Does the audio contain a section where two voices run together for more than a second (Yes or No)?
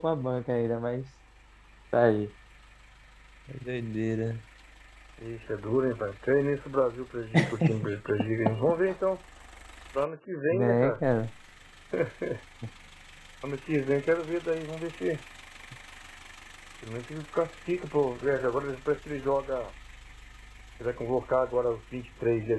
No